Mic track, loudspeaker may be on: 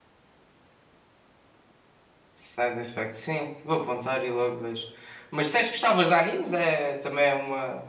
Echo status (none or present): none